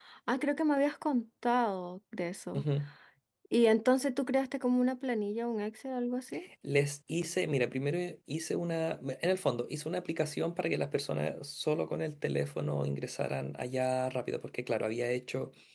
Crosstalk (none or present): none